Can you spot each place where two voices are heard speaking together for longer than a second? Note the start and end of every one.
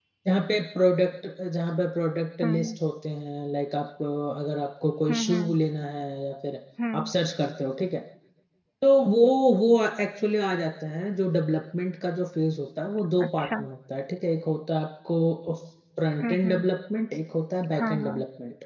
none

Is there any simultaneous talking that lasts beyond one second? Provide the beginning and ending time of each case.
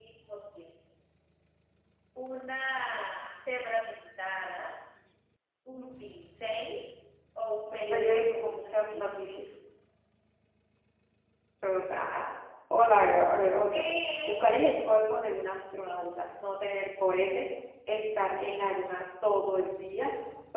7.7-9.3

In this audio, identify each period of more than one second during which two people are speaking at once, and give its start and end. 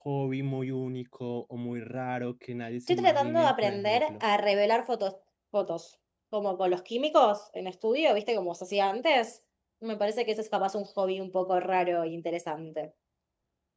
2.9-4.2

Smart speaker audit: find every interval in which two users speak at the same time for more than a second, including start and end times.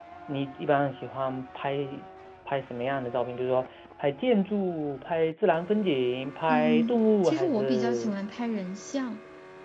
6.5-8.1

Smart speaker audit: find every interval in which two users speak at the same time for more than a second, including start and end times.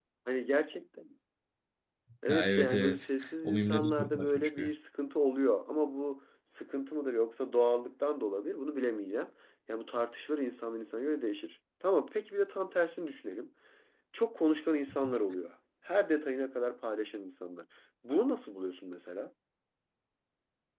2.3-4.7

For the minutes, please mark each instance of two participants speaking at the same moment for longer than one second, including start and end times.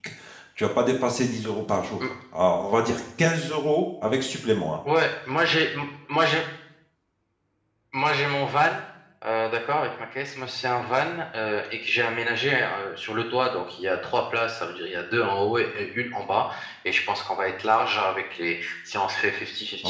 none

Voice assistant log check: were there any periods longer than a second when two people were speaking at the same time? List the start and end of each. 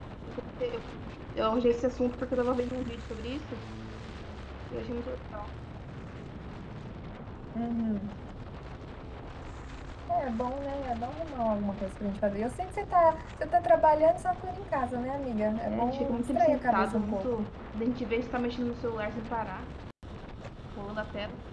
15.7-17.4

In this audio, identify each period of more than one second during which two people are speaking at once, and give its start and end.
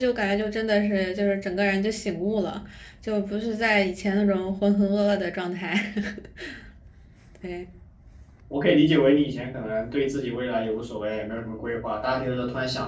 none

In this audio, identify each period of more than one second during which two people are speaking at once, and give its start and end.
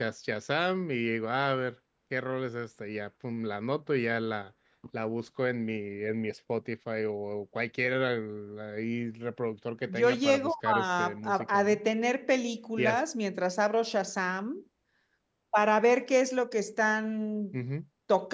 9.9-11.8

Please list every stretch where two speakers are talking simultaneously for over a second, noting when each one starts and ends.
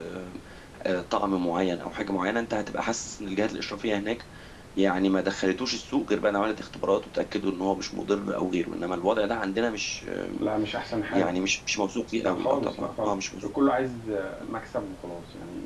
12.2-13.4

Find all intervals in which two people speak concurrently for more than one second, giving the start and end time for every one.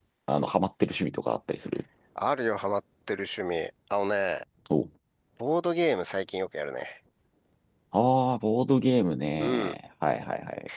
none

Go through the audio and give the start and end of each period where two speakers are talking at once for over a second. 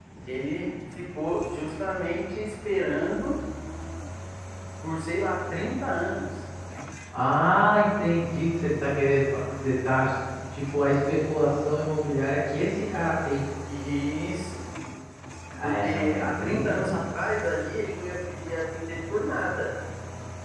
15.6-17.0

